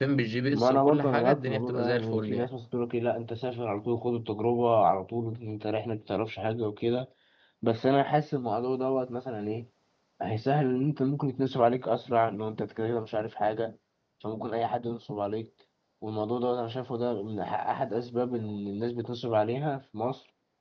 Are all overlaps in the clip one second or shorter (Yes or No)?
No